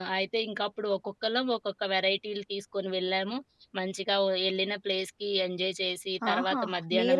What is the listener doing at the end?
taking over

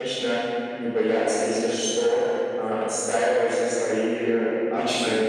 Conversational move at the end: taking over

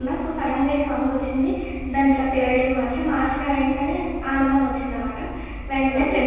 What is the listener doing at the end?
listening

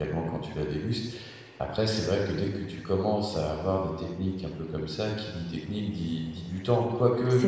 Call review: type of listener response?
listening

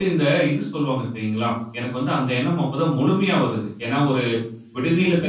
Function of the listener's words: listening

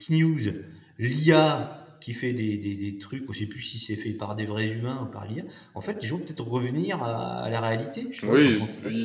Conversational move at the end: taking over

